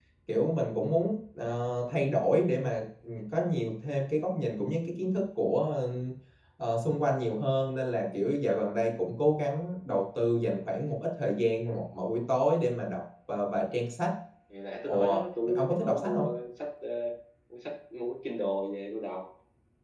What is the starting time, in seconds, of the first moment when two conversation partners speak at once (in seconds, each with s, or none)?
14.9 s